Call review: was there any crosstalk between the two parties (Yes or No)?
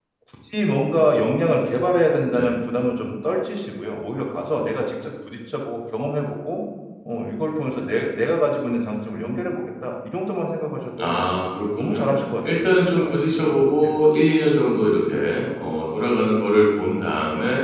Yes